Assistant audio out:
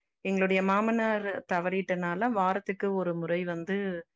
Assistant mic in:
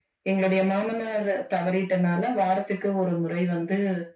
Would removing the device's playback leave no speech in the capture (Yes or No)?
Yes